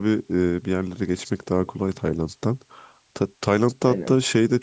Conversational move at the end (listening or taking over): listening